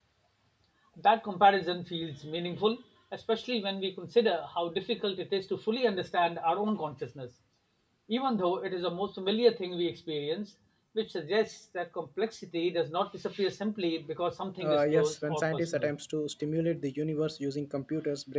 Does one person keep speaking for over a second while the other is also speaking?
Yes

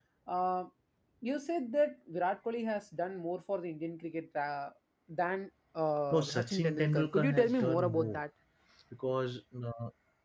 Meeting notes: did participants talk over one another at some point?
Yes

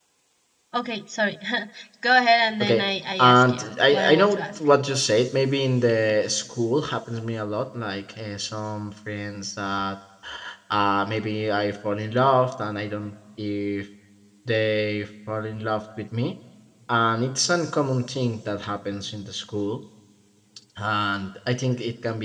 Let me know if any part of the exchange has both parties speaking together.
Yes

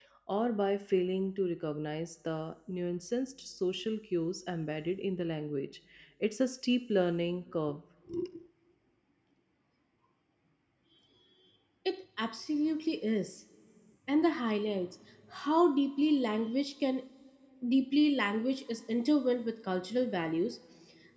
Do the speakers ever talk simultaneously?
No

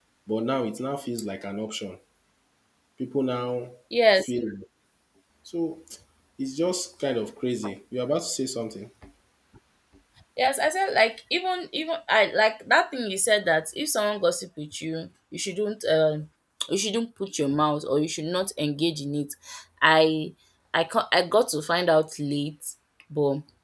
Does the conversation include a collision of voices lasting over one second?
No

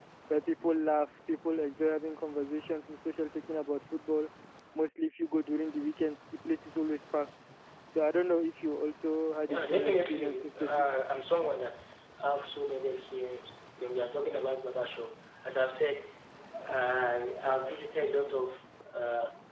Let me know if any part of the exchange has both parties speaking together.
Yes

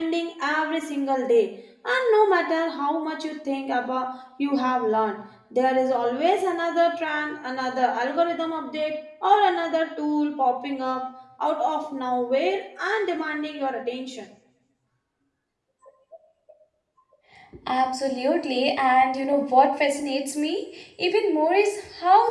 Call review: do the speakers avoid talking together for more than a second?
Yes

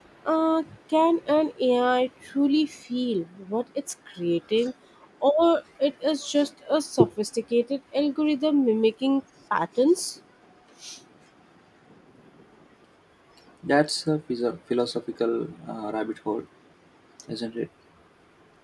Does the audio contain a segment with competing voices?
No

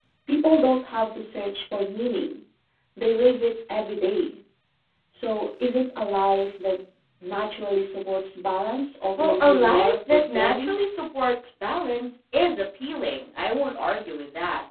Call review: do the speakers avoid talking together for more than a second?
No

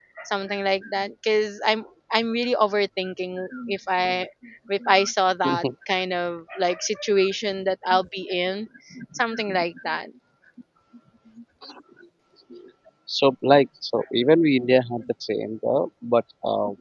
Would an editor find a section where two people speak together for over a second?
No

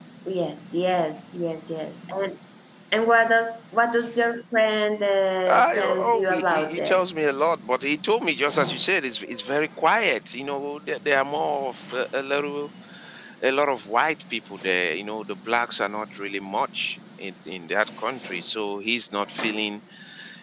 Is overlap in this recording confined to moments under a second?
No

